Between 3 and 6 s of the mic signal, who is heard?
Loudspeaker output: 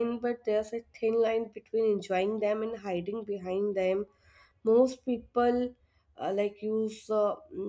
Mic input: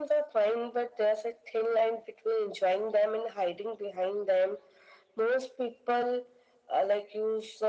echo only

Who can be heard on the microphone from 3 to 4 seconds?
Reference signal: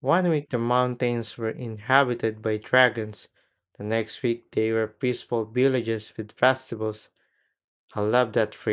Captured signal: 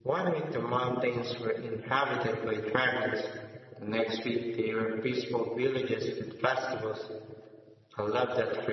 echo only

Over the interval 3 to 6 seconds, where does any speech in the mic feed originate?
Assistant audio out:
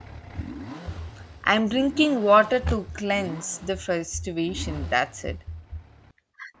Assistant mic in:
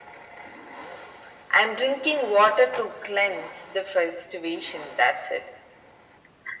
echo only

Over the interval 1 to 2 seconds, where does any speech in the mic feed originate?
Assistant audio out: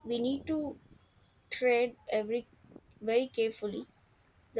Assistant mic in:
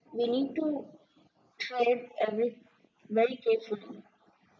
echo only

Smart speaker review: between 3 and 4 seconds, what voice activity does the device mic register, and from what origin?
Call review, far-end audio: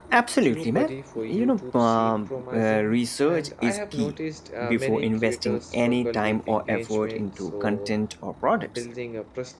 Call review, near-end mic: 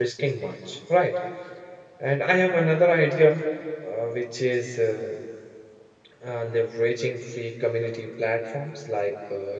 user only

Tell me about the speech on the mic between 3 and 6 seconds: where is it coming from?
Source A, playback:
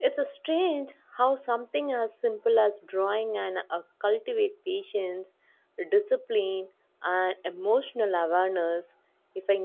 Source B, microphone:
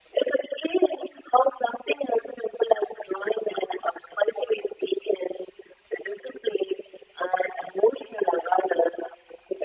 echo only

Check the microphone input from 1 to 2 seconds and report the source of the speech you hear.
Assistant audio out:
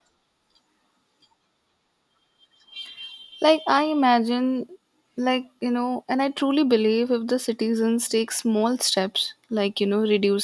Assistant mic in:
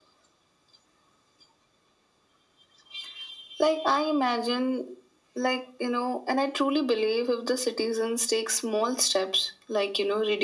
neither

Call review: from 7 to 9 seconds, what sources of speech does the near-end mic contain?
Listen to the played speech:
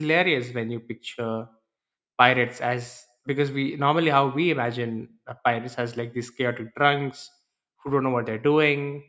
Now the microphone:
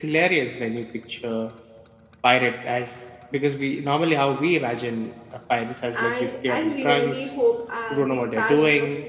both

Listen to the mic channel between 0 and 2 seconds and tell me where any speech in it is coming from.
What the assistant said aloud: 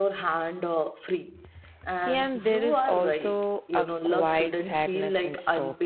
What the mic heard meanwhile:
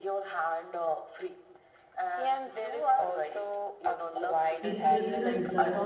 echo only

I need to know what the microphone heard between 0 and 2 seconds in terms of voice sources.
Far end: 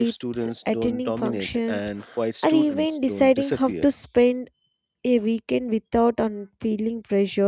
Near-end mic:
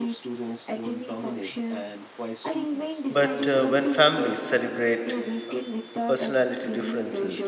echo only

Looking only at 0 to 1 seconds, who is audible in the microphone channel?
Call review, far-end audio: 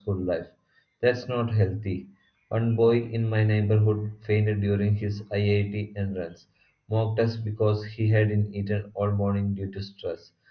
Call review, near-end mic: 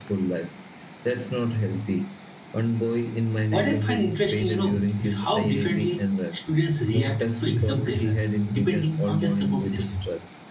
echo only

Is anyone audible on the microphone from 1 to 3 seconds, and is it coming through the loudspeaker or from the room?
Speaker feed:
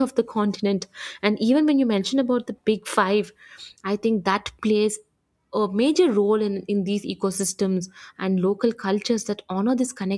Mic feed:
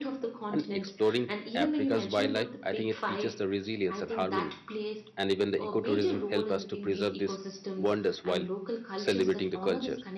both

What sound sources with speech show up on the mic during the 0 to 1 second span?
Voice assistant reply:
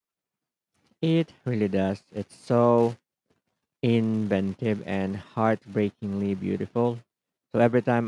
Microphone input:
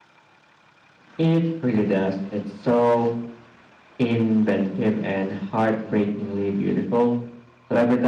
neither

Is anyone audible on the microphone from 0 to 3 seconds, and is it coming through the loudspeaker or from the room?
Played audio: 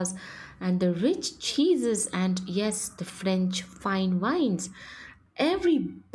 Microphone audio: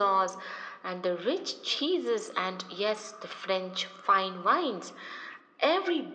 echo only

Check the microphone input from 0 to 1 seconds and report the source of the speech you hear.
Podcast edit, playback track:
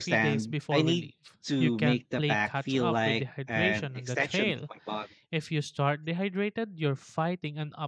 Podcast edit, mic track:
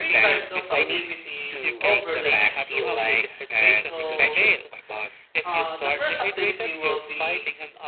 both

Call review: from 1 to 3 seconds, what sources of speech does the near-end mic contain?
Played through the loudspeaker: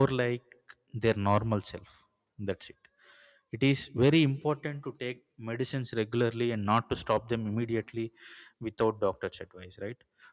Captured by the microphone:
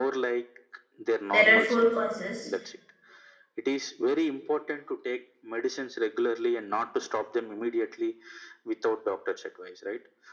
both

